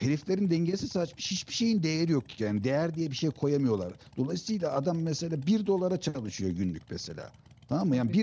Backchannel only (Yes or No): Yes